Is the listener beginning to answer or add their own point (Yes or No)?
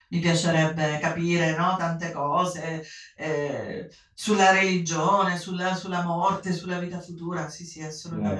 Yes